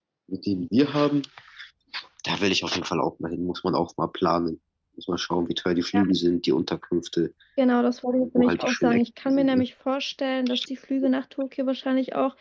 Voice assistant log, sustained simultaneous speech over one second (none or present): present